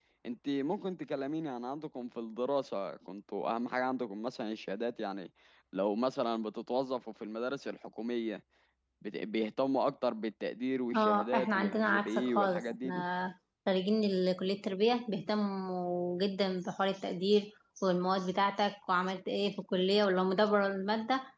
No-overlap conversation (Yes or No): No